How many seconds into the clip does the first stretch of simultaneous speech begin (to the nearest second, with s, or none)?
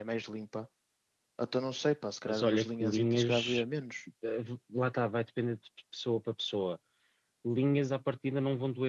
2 s